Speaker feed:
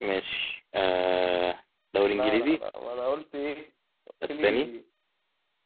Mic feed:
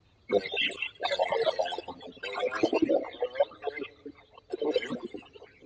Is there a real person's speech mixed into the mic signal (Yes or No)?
No